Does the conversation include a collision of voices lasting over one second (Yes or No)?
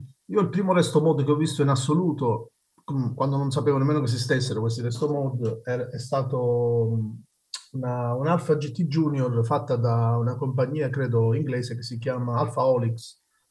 No